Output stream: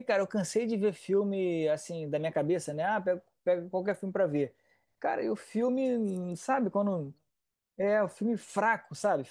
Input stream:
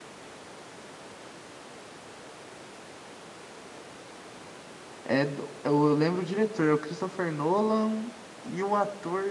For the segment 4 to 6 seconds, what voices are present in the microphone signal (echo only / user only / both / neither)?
user only